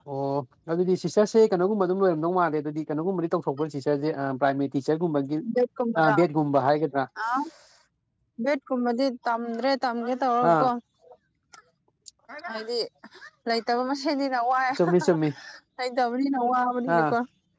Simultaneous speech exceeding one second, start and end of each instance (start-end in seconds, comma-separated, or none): none